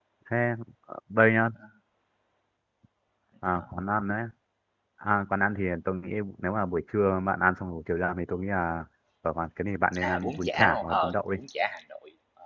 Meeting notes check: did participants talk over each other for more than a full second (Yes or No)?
Yes